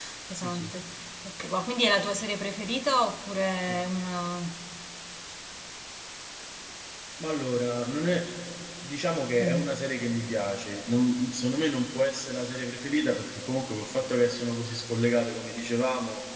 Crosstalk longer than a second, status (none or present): none